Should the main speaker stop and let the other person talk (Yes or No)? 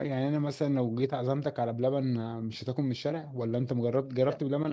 Yes